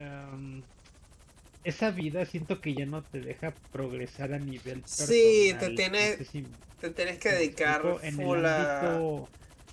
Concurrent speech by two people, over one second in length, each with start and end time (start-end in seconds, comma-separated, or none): 5.0-6.2, 7.3-9.0